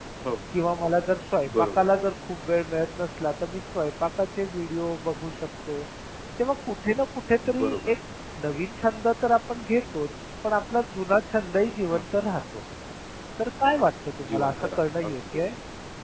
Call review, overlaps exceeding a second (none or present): present